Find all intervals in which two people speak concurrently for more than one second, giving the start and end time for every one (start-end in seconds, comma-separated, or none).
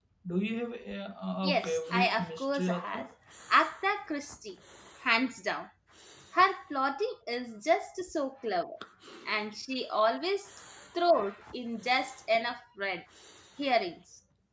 1.4-3.0